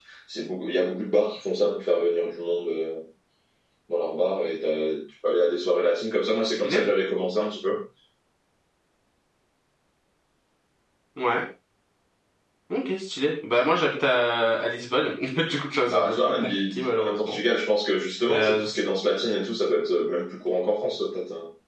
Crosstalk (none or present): present